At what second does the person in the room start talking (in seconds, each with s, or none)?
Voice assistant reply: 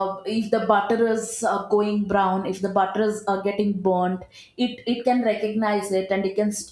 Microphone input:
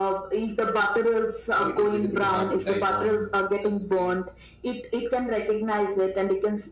1.5 s